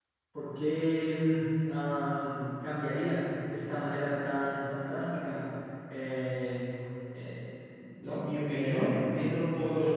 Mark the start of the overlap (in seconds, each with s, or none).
8.0 s